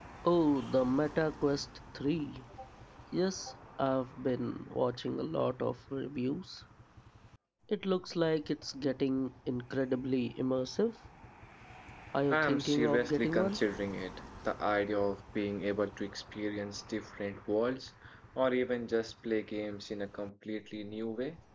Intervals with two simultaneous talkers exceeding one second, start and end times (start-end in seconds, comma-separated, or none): 12.3-13.6